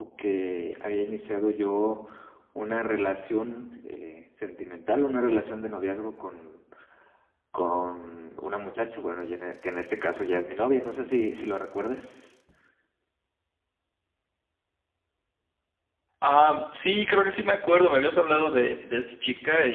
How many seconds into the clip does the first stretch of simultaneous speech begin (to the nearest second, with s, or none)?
none